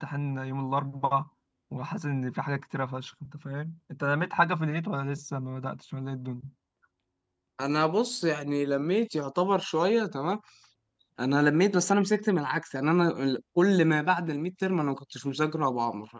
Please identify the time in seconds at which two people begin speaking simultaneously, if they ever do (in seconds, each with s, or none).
none